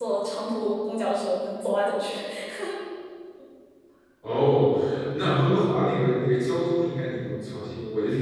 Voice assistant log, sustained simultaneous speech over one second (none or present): none